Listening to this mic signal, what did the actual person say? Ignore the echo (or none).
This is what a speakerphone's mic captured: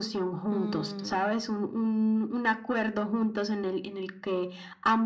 Mm,